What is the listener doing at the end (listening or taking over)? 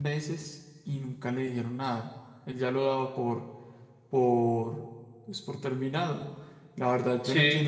listening